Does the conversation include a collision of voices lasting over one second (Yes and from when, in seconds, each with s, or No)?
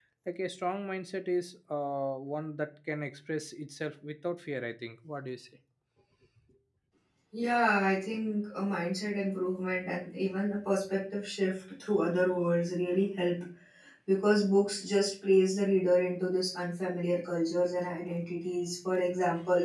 No